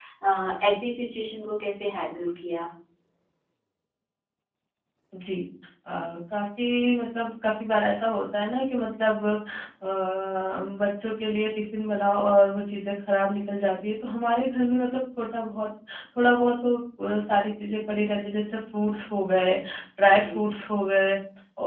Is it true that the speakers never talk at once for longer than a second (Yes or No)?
Yes